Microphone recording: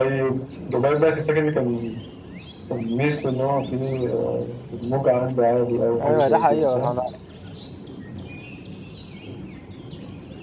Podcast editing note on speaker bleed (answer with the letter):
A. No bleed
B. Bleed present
B